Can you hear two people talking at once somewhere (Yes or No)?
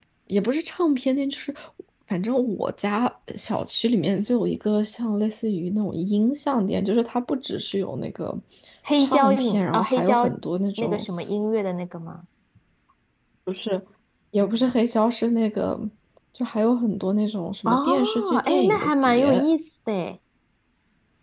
Yes